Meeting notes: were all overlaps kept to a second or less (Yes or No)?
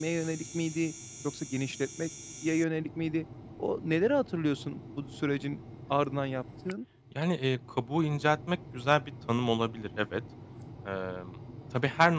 Yes